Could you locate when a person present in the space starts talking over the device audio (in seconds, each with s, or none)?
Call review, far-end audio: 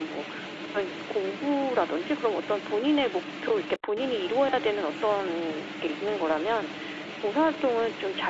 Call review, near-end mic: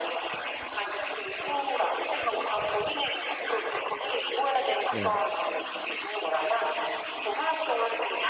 4.9 s